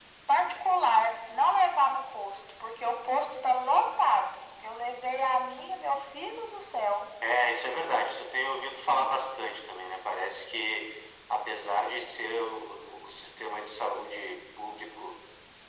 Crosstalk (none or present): none